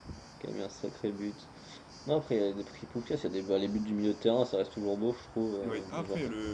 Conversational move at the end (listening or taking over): taking over